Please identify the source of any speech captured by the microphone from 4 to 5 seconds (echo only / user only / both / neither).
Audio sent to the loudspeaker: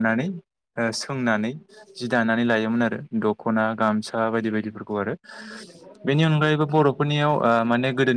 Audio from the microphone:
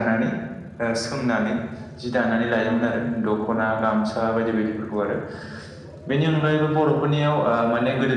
echo only